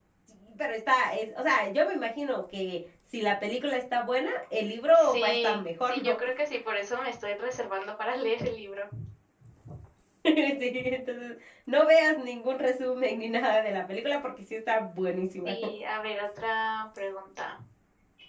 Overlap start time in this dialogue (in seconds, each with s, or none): 4.9 s